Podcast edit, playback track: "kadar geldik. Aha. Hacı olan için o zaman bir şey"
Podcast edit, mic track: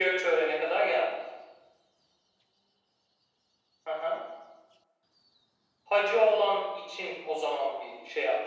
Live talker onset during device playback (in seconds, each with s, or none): none